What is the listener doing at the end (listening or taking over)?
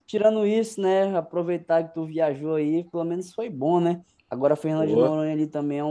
listening